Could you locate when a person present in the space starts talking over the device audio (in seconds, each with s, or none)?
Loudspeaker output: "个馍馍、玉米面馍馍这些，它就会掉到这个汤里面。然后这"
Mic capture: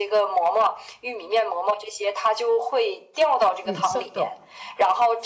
3.6 s